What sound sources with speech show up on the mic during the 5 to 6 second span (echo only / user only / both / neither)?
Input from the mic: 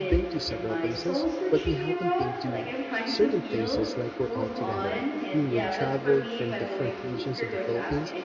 both